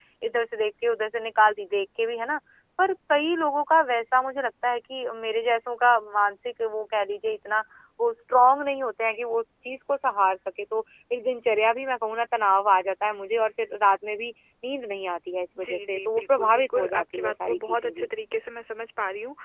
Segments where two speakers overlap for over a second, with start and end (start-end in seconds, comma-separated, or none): 15.6-18.1